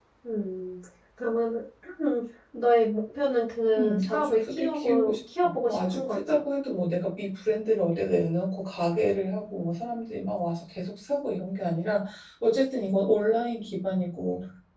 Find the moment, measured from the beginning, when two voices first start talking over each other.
3.8 s

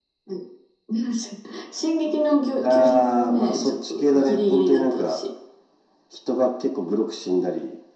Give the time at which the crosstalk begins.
2.6 s

